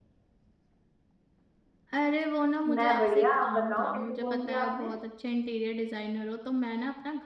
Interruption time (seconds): 3 s

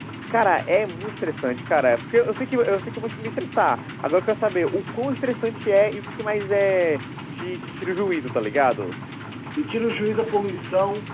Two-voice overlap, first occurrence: none

